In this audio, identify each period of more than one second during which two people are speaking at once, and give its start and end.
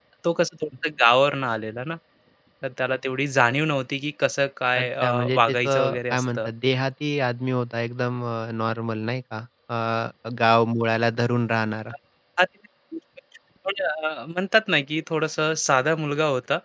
4.8-6.5

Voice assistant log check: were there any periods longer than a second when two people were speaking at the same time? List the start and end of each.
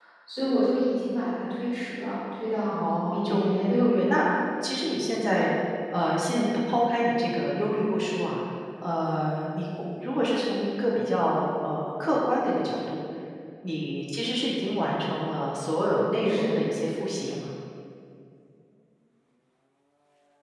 2.7-4.2

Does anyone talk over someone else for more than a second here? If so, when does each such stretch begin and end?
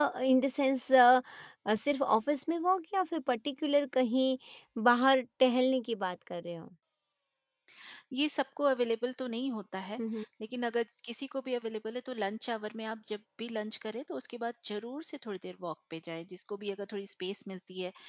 none

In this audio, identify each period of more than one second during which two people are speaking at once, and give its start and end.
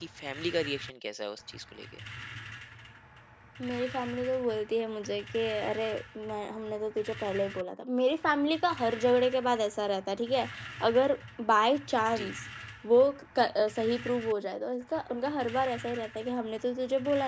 none

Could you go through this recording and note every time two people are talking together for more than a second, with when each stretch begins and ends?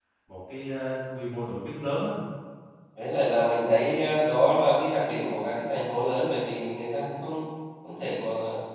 none

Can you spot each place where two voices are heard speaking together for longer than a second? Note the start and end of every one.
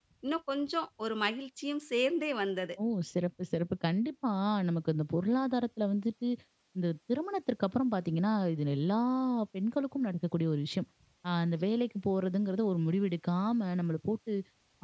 none

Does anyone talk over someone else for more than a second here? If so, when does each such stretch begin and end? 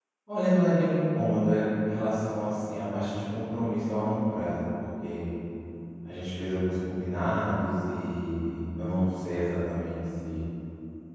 none

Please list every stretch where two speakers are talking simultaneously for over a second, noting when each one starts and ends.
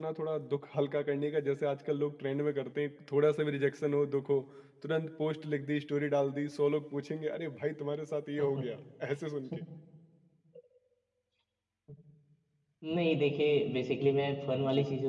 none

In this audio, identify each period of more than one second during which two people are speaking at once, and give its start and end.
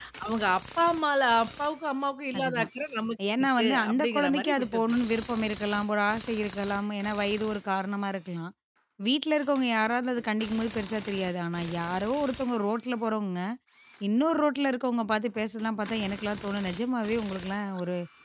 3.4-5.0

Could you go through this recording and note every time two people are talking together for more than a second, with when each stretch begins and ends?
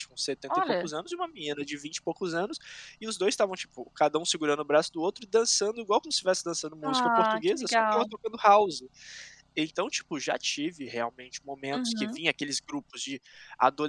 6.8-8.0

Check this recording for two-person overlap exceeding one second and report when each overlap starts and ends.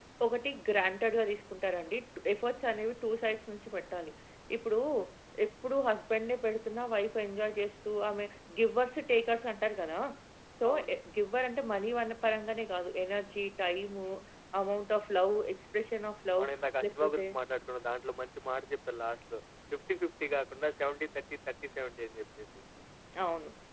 none

